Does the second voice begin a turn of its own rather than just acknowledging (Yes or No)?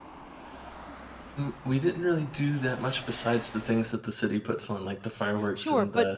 Yes